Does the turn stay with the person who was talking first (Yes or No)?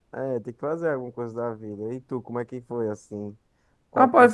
No